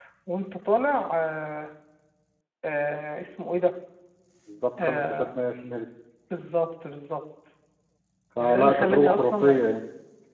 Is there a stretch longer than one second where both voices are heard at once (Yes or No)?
Yes